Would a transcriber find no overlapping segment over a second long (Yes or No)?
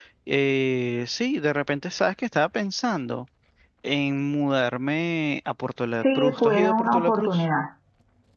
No